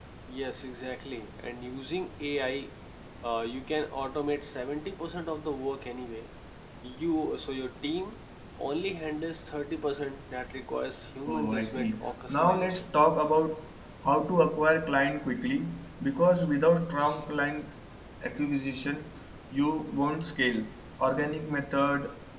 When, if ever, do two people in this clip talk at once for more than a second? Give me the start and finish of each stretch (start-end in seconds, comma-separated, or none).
11.3-12.9